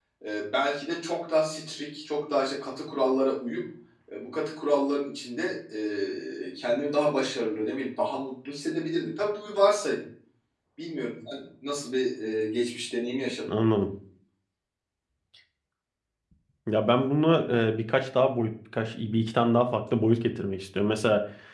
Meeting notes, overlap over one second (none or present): none